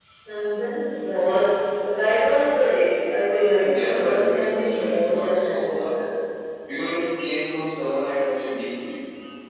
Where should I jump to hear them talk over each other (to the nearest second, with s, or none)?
4 s